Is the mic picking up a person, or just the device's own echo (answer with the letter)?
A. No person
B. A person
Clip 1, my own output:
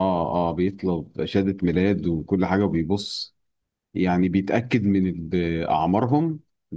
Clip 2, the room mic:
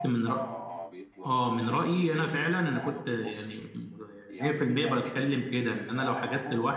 B